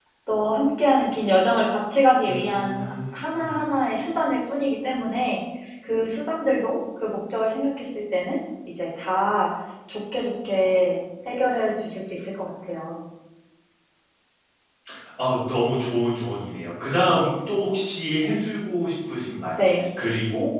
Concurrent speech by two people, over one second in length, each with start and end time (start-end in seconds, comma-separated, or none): 2.2-3.5